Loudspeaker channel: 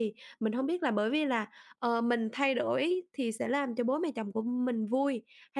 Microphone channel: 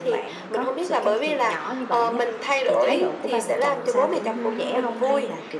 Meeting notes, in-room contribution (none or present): present